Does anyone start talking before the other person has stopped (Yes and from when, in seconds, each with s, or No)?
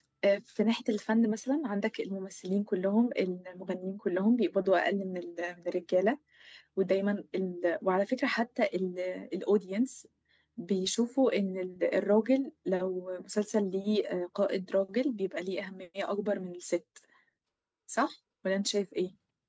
No